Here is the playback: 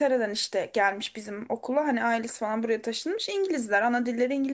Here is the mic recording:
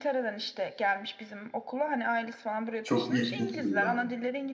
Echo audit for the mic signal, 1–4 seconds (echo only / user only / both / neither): both